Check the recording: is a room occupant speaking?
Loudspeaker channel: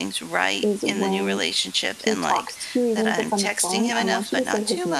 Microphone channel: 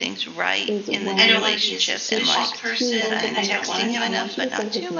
Yes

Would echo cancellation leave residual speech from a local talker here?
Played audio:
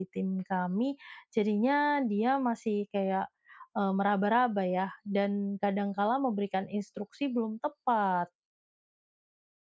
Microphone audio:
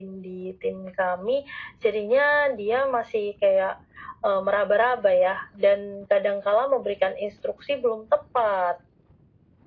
No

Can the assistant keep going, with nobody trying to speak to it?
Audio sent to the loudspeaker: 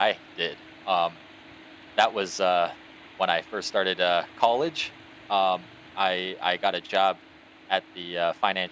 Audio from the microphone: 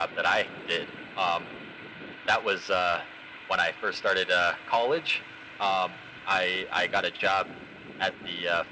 Yes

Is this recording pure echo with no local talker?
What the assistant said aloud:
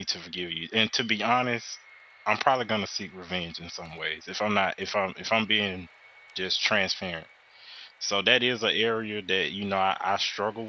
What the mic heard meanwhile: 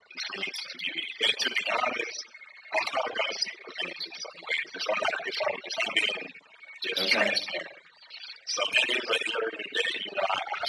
No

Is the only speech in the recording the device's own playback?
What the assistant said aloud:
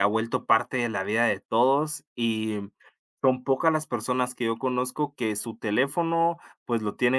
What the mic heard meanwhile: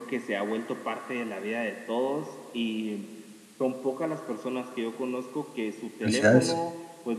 No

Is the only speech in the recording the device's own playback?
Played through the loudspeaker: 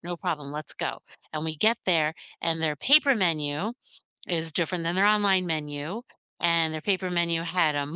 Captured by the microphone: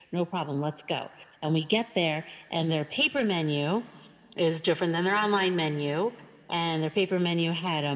Yes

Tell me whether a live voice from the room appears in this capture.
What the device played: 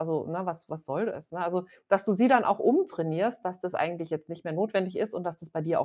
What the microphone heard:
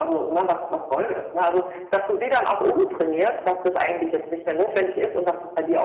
No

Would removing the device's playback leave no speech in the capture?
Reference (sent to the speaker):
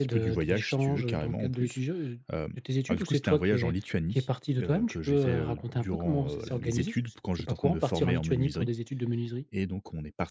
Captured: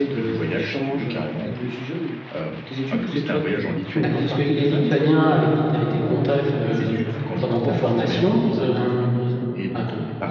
No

